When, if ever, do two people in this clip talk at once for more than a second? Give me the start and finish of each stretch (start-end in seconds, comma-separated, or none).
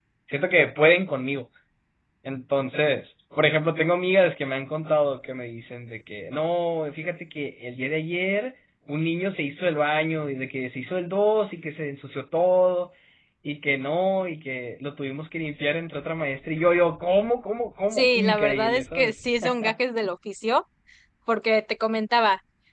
17.9-19.1